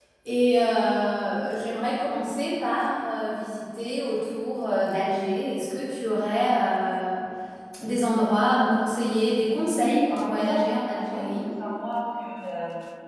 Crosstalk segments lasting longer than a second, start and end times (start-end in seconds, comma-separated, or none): 9.6-11.5